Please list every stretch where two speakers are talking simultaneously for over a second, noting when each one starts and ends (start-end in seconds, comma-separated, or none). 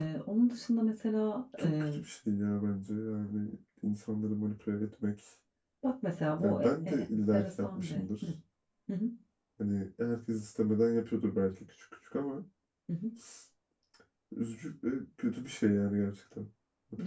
6.4-8.2